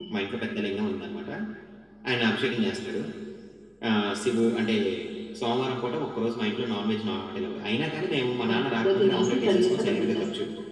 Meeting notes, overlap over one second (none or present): present